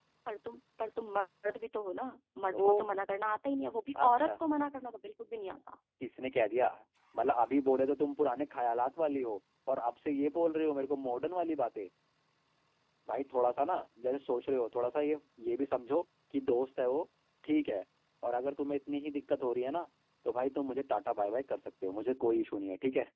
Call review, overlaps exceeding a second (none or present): none